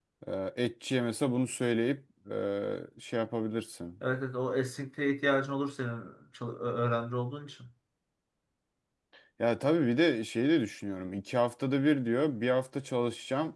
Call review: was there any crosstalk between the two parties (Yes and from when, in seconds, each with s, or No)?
No